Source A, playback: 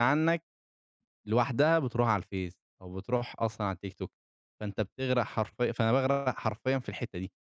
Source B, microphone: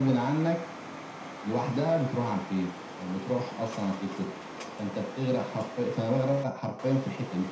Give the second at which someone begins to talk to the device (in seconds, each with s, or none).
none